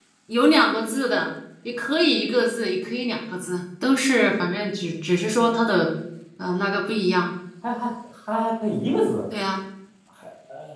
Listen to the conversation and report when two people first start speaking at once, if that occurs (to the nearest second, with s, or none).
none